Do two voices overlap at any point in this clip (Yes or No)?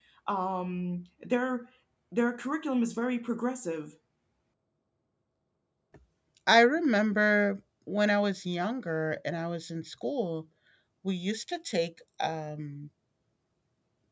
No